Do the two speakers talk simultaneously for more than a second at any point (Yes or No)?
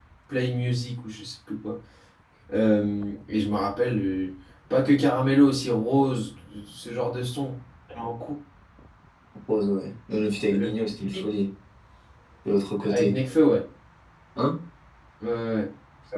No